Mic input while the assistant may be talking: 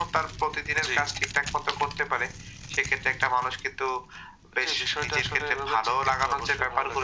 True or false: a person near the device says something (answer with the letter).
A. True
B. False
B